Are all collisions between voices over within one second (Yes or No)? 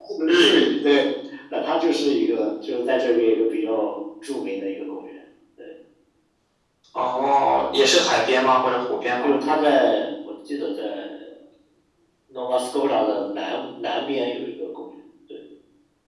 Yes